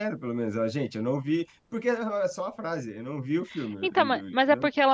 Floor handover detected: Yes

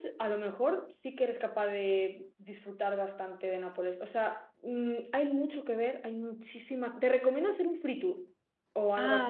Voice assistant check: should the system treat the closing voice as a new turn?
No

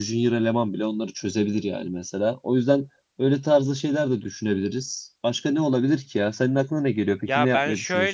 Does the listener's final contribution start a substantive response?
Yes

